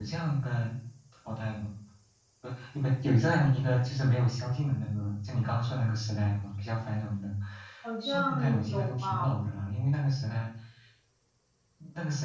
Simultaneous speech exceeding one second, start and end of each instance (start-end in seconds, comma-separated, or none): 8.0-9.3